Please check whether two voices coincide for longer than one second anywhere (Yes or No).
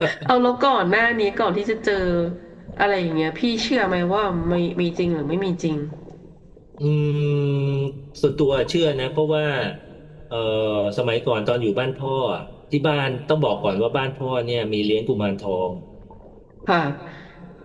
No